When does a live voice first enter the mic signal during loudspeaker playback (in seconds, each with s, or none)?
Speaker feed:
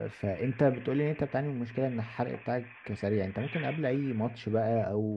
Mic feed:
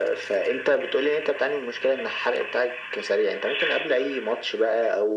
none